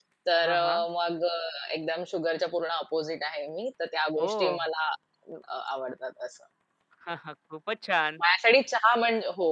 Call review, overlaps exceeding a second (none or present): none